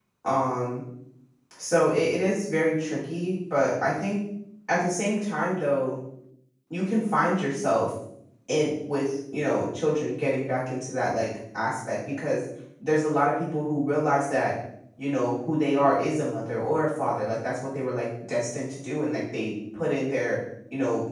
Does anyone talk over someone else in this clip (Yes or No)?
No